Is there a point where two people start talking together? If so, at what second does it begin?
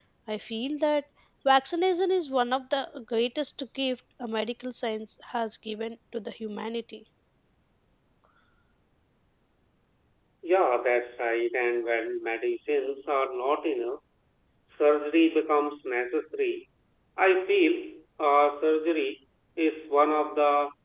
none

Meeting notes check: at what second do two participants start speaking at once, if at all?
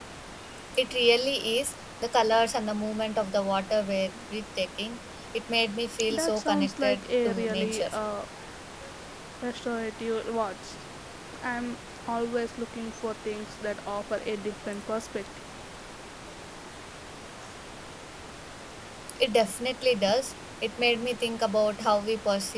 6.1 s

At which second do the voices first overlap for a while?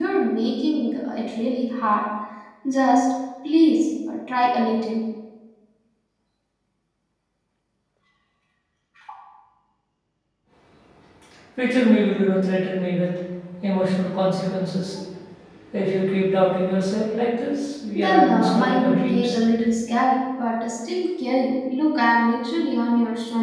17.9 s

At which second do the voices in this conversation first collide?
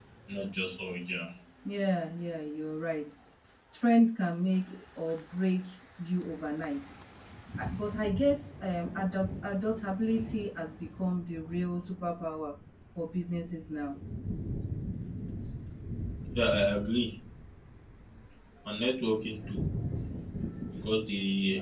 none

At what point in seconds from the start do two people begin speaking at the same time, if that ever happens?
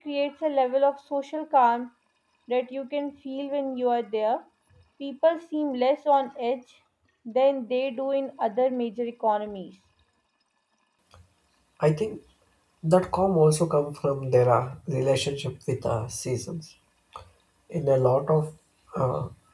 none

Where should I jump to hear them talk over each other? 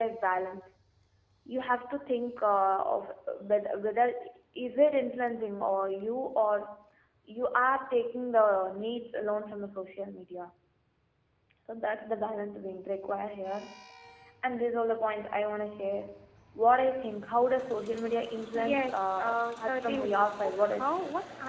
18.5 s

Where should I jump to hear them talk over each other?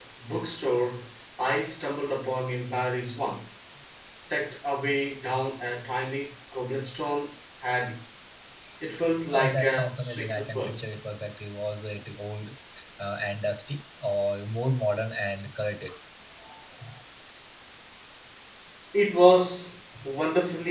9.3 s

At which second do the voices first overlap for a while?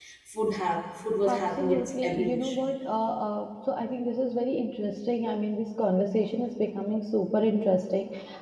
1.3 s

